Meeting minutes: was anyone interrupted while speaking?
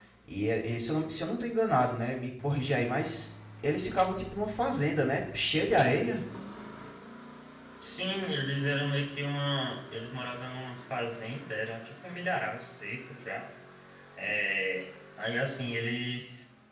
No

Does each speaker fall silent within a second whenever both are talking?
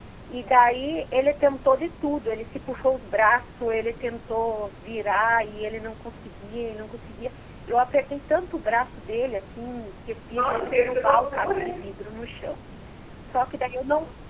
No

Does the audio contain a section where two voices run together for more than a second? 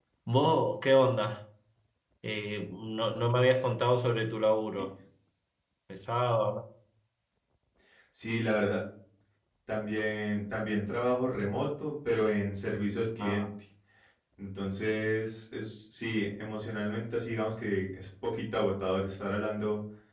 No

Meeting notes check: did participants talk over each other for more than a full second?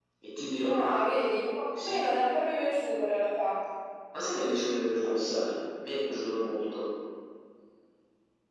No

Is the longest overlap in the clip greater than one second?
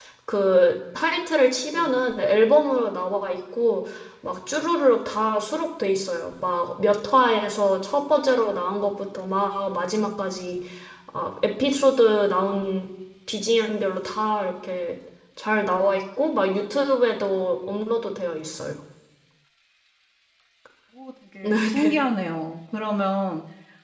No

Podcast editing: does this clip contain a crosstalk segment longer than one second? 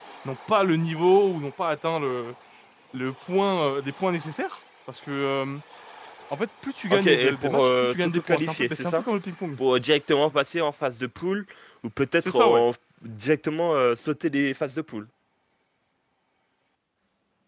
Yes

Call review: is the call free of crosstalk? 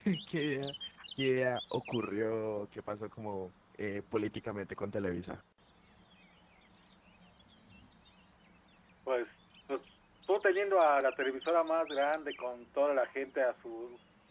Yes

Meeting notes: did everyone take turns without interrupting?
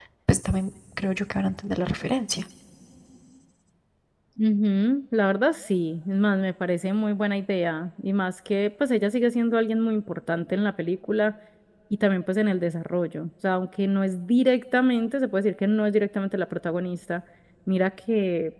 Yes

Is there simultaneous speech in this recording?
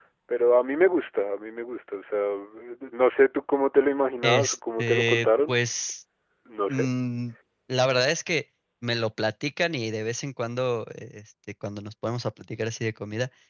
Yes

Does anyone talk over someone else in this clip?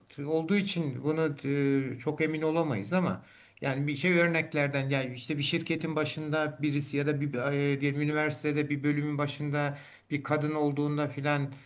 No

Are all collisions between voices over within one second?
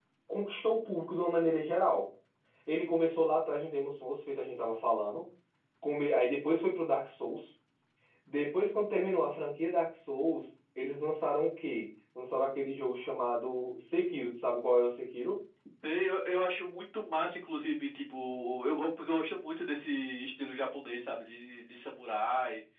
Yes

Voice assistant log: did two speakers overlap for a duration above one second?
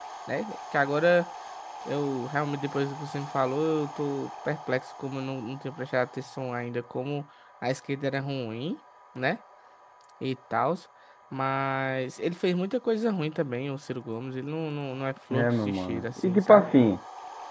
Yes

